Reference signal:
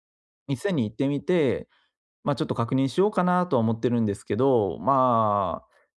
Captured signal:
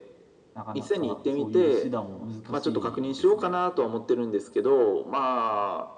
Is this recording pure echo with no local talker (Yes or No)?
No